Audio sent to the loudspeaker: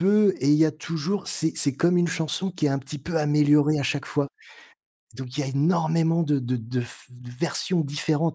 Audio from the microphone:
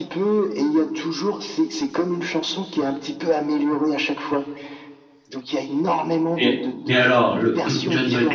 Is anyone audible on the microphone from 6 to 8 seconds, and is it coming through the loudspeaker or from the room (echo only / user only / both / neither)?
both